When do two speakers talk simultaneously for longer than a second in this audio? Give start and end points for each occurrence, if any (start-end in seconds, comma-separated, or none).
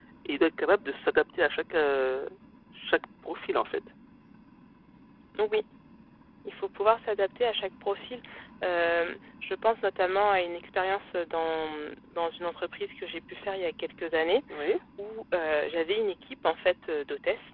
none